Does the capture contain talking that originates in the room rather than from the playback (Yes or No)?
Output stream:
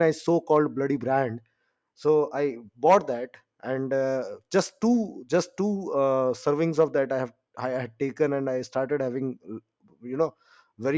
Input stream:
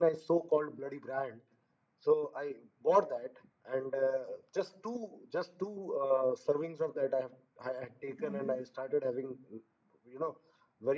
Yes